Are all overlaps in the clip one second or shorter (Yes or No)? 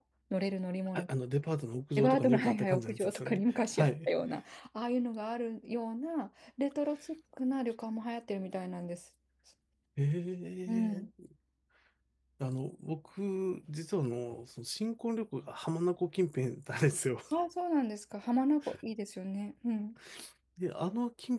No